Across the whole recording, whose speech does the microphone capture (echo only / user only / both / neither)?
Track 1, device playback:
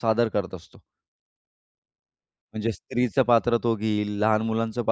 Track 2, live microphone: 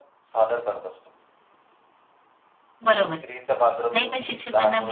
both